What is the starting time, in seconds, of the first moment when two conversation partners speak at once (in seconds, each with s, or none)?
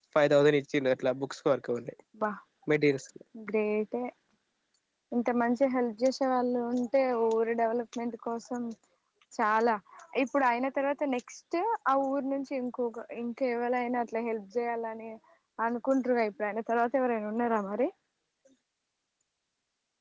none